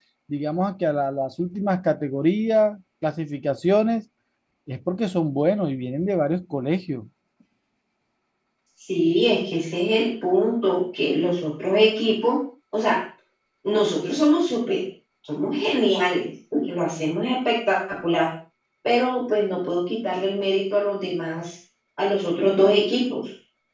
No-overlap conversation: Yes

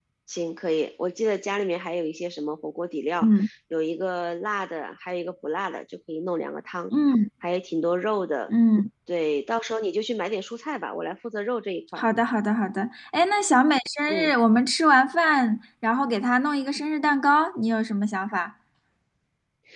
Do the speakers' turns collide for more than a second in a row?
No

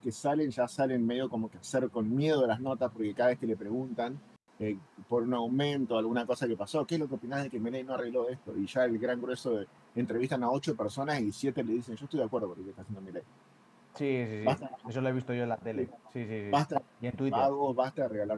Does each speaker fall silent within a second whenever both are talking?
Yes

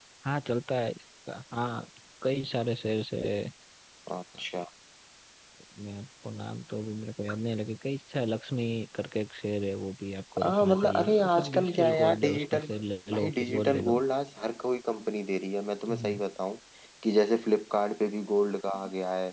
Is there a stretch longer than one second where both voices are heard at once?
Yes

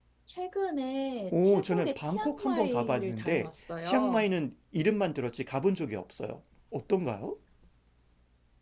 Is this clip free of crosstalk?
No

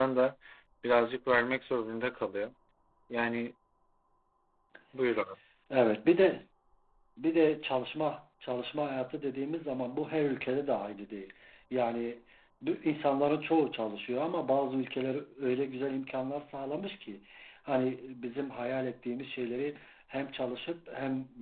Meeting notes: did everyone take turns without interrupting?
Yes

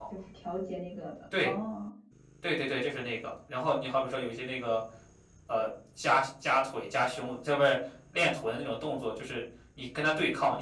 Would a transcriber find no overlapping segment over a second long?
Yes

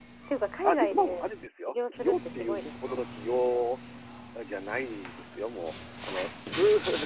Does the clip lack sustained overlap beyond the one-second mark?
No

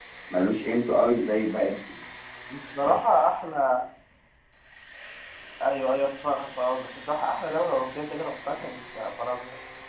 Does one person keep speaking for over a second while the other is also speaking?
No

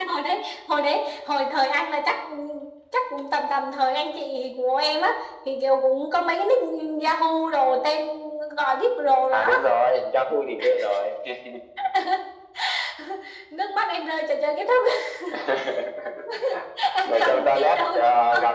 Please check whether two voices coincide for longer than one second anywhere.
Yes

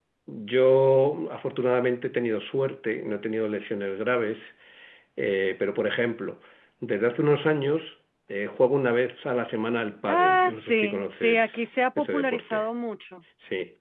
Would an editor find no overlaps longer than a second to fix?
No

